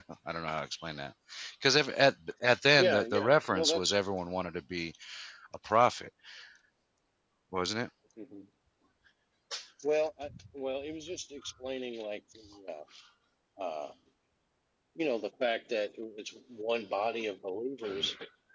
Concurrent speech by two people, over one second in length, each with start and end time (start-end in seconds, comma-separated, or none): 2.8-4.0